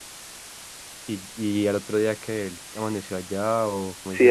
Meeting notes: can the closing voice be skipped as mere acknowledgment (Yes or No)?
No